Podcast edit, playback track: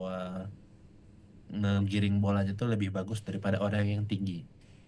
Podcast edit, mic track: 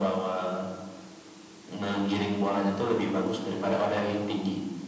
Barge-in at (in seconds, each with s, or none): none